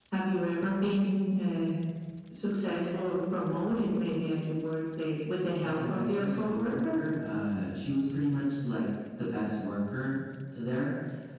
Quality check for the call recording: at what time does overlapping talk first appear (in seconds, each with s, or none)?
5.6 s